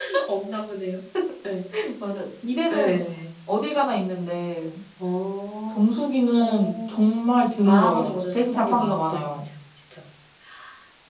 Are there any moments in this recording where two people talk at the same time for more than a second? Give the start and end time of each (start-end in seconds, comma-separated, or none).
7.6-9.4